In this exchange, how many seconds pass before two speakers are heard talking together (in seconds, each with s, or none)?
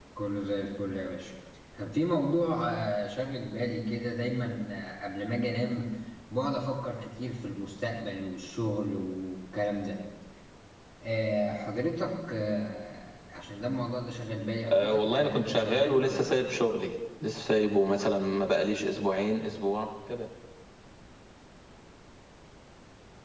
14.7 s